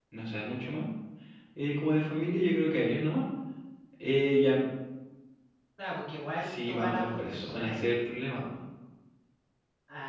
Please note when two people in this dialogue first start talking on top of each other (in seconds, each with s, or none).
6.4 s